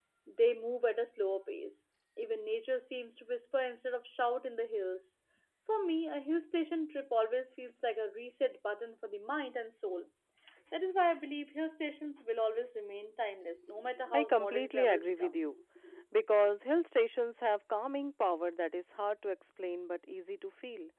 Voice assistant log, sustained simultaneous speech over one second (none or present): present